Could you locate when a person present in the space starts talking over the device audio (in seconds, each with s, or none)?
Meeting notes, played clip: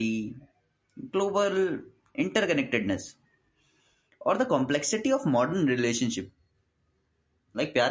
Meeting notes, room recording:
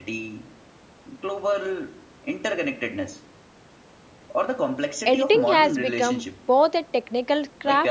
5.1 s